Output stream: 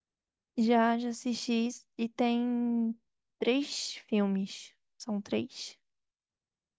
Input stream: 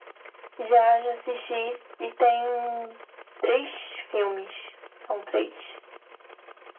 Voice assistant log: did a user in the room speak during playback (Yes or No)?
No